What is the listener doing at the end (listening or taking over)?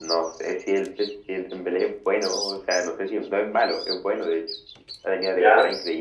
listening